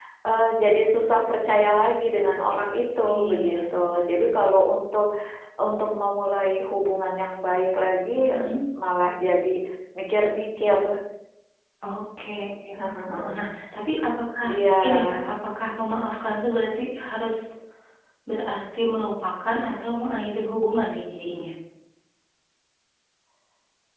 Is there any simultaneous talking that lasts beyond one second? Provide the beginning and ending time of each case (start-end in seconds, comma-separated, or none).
3.1-4.5